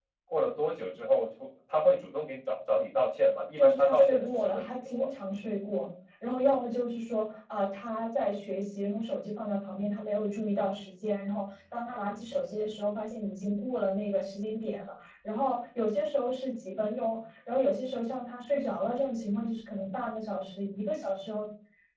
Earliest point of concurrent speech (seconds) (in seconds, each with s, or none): 3.5 s